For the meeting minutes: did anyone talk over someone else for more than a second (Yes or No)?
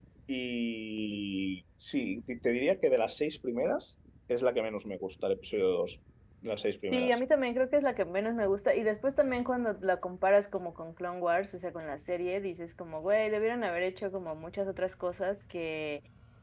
No